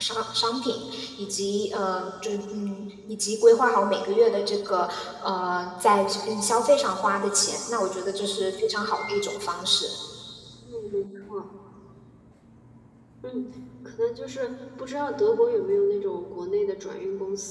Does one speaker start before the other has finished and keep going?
No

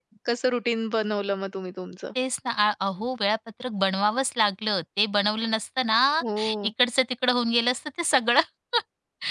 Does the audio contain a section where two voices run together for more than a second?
No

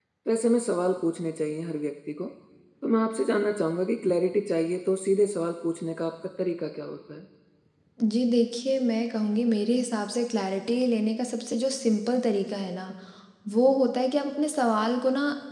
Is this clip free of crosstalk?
Yes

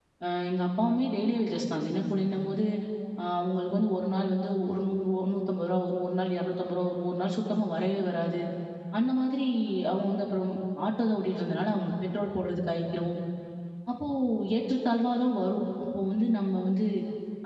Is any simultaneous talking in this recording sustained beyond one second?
No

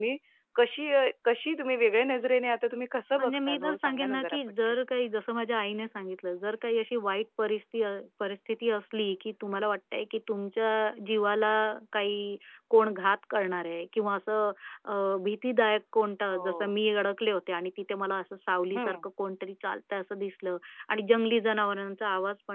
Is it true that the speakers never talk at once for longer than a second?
No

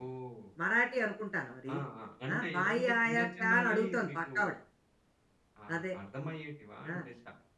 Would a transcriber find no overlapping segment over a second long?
No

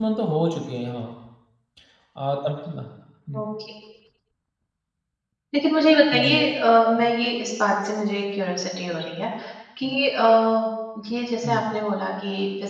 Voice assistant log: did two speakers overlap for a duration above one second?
No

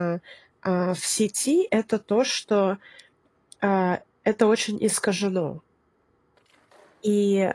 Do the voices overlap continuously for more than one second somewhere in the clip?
No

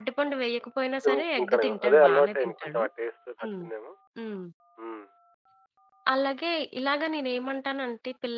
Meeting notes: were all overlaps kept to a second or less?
No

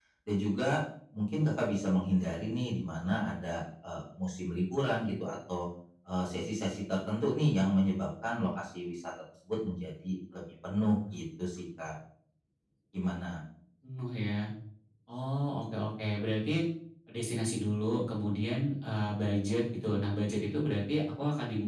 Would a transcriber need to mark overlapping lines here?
No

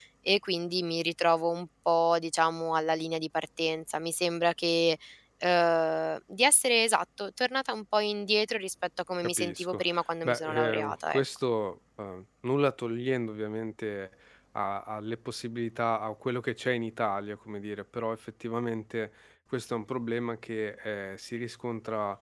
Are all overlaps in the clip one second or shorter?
No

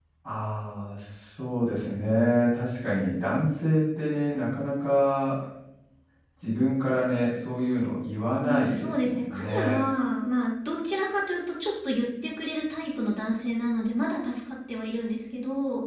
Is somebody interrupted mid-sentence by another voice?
Yes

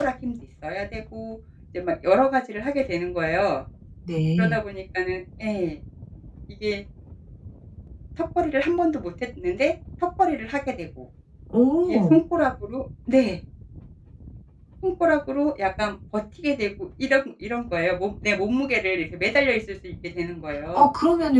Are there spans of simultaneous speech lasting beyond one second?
No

